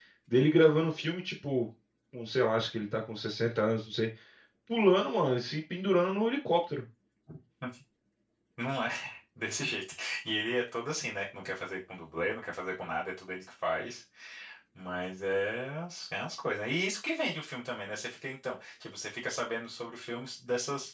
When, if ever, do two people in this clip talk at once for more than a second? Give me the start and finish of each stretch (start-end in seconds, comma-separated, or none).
none